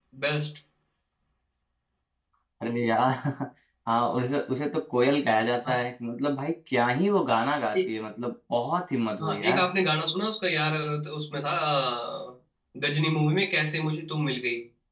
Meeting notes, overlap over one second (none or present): none